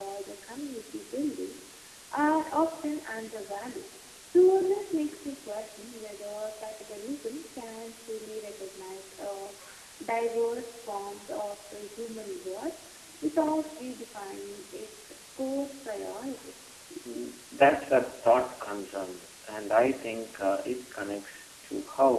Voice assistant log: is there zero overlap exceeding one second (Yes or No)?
Yes